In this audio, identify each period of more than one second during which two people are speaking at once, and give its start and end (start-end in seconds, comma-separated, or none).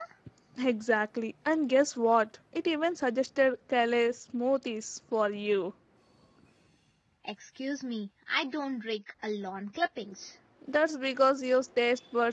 none